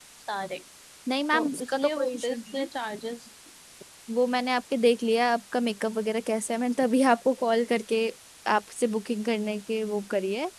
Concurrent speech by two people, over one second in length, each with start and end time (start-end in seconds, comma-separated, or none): 1.3-2.7